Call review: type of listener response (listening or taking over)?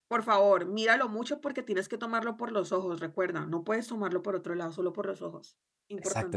taking over